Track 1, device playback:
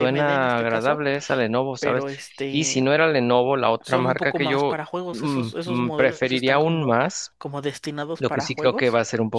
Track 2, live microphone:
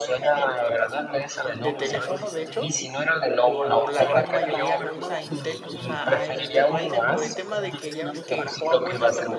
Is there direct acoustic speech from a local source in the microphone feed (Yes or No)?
Yes